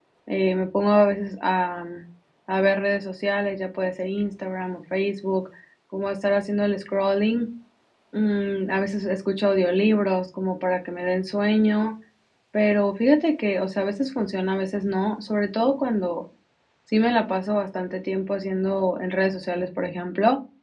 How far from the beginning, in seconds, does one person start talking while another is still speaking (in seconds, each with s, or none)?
none